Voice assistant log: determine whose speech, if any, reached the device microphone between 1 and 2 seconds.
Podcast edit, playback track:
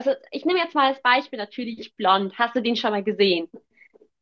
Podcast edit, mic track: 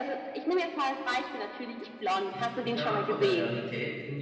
echo only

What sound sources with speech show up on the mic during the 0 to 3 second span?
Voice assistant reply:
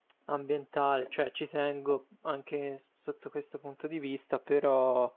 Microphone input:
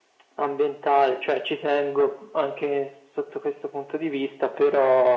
echo only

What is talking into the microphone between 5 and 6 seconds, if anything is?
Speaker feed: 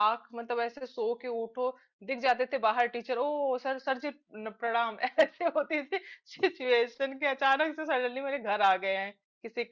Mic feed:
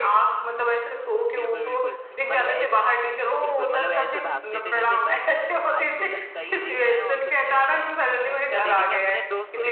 both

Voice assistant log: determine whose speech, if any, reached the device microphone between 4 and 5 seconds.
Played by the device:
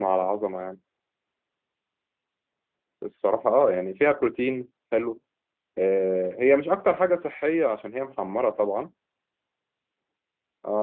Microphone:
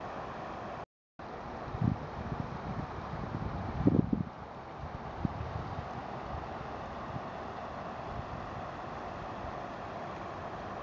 neither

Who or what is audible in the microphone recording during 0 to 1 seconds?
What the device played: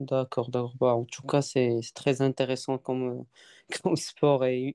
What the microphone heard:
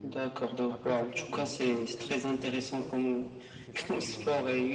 both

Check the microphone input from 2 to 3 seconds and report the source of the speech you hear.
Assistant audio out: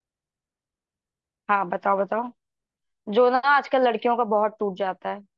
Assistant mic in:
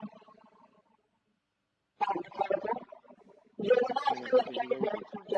echo only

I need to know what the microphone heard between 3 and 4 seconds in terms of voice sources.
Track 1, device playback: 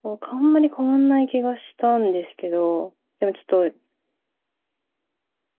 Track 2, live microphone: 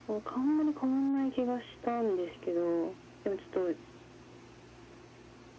echo only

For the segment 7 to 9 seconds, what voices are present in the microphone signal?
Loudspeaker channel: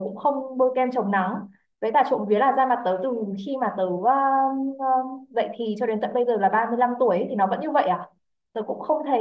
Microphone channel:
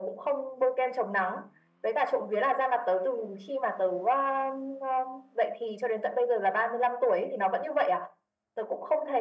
echo only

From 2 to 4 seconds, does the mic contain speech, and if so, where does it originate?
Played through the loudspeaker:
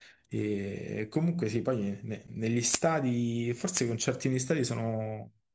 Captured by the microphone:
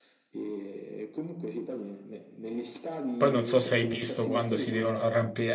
both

